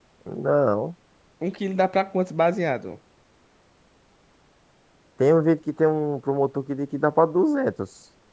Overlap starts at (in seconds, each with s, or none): none